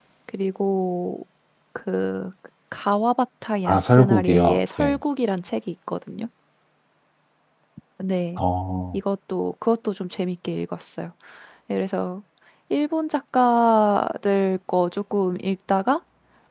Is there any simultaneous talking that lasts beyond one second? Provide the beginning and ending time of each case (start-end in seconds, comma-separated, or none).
3.6-5.0